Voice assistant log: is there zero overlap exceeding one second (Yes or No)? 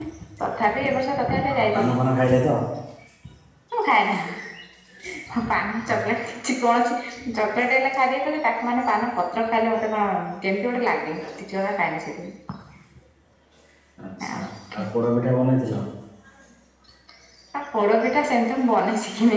Yes